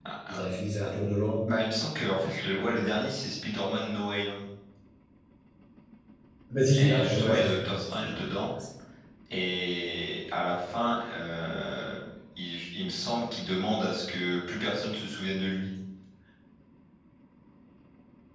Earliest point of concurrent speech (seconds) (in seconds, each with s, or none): 6.8 s